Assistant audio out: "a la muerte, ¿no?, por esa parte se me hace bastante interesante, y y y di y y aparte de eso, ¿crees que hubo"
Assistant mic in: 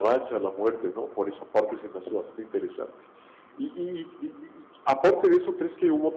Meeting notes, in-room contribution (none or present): none